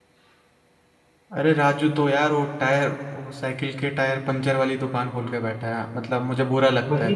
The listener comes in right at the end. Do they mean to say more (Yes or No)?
Yes